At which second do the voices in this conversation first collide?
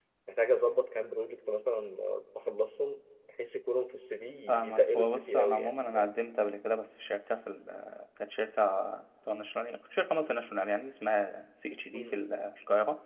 4.5 s

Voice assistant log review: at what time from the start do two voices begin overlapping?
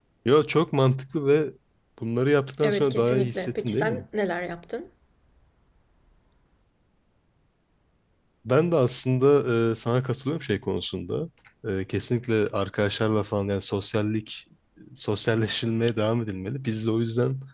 2.6 s

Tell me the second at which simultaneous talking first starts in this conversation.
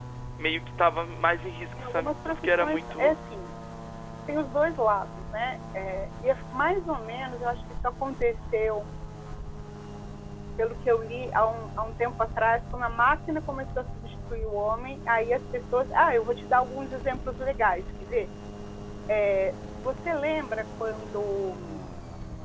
1.8 s

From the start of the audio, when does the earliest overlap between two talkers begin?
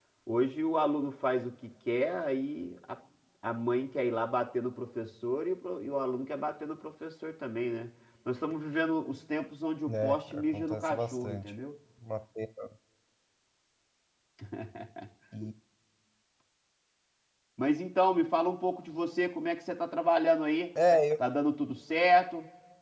9.9 s

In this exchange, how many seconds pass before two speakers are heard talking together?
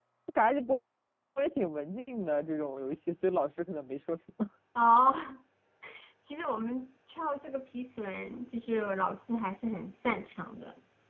none

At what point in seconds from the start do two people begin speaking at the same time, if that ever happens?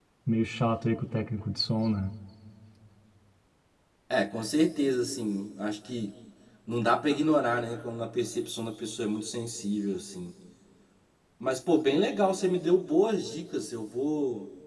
none

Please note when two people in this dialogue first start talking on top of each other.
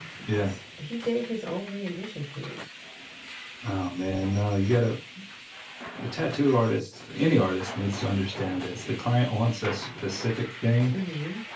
none

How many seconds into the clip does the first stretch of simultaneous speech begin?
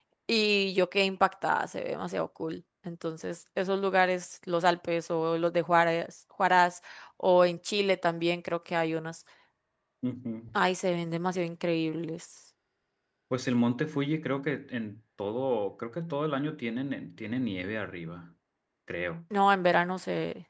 none

